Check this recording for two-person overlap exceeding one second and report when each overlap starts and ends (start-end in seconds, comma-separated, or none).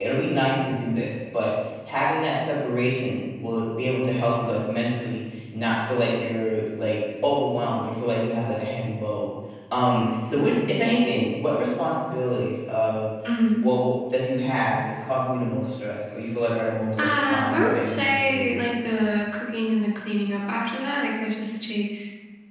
17.0-18.6